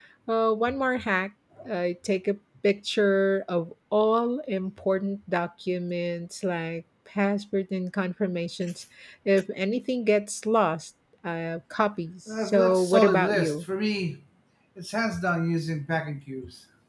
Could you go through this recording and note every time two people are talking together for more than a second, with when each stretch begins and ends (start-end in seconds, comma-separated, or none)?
12.4-13.7